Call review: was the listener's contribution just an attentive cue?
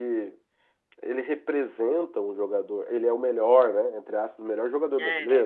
Yes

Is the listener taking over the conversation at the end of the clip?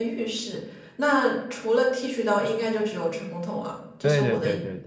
Yes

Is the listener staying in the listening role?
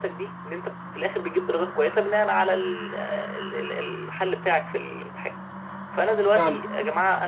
Yes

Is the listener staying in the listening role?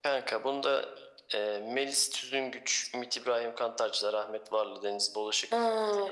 No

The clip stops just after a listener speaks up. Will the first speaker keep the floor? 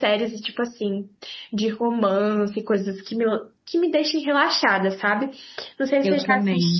Yes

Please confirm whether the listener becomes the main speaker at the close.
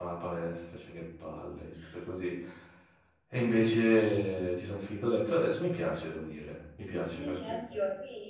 Yes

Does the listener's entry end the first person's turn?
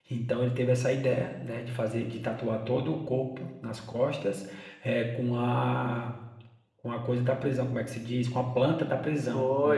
Yes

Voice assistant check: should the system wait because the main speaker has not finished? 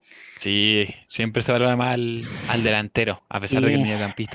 Yes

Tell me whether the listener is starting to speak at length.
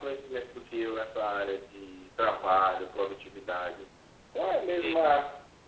No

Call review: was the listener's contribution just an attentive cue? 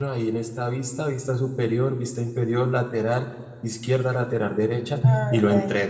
No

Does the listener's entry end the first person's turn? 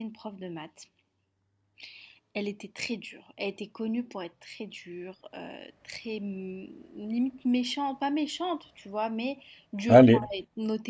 No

